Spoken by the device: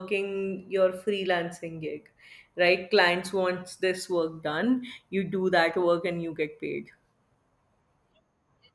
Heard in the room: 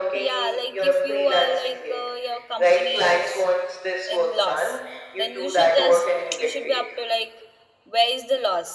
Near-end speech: present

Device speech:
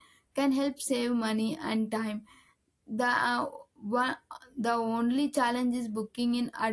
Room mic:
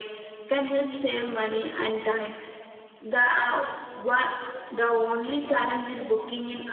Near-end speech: none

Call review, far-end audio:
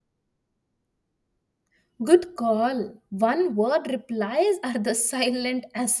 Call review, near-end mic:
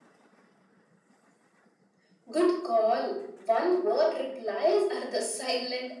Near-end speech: none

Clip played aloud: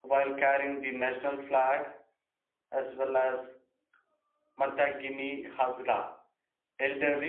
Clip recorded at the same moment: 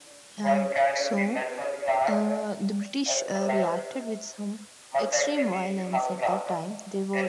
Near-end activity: present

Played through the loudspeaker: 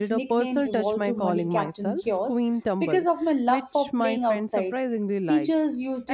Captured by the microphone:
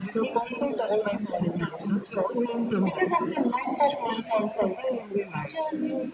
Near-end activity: none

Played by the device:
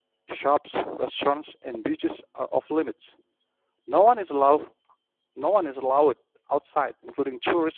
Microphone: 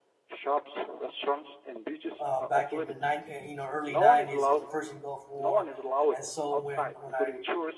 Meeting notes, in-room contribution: present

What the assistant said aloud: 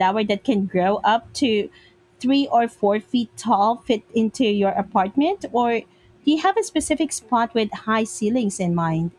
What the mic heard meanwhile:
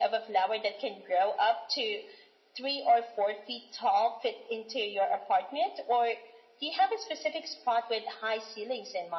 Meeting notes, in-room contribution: none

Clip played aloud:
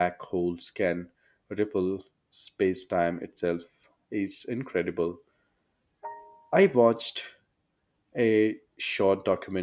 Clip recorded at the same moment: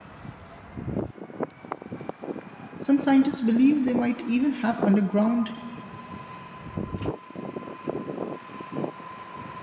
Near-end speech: present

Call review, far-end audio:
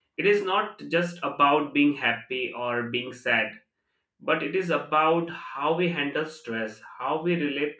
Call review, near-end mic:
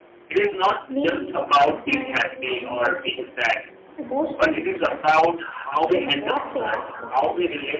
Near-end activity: present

